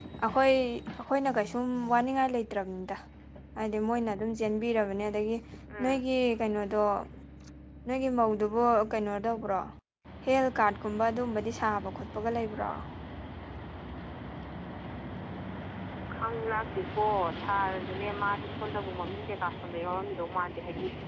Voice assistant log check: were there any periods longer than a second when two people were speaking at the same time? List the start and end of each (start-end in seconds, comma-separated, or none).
none